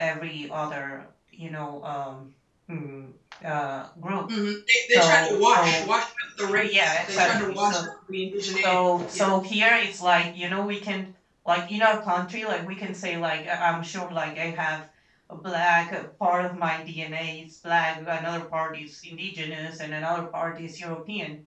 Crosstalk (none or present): present